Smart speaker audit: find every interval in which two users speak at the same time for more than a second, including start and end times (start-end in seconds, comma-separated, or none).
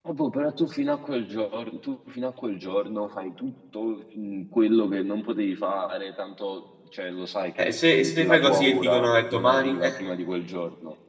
7.6-10.0